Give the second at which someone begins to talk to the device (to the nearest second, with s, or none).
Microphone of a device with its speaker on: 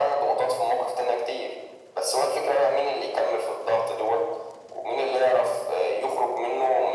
none